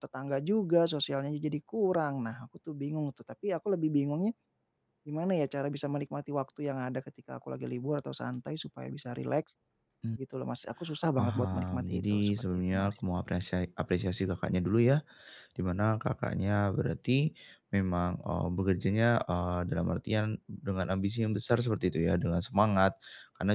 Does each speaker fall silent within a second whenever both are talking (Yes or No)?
No